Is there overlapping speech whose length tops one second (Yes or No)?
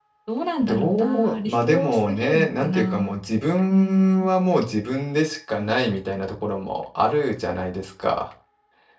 Yes